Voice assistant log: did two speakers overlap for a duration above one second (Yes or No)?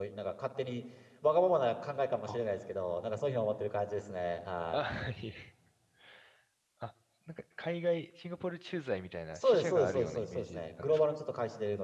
Yes